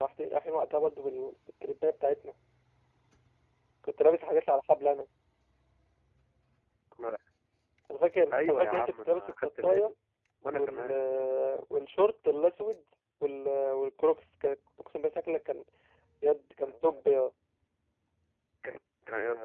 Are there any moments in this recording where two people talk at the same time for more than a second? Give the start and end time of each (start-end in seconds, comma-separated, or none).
8.3-9.9